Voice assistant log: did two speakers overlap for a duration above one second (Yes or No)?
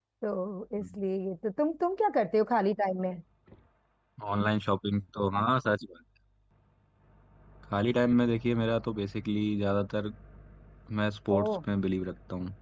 No